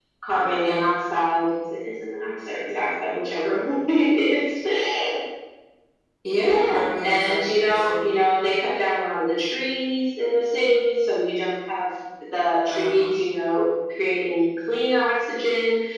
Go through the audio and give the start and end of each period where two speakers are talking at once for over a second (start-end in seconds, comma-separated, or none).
6.4-7.9